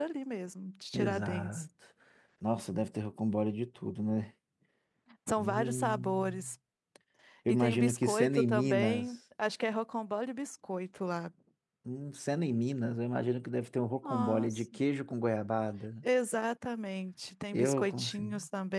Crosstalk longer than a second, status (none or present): present